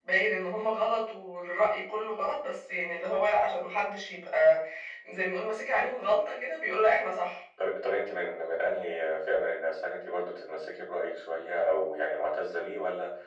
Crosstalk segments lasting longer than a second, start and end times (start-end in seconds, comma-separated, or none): none